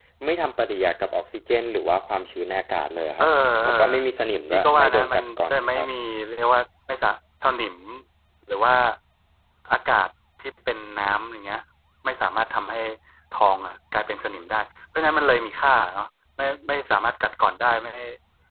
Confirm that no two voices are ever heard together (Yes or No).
No